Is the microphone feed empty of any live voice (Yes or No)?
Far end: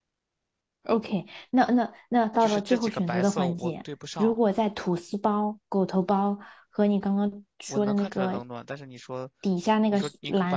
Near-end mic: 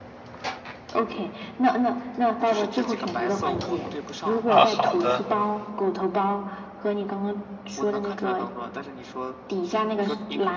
No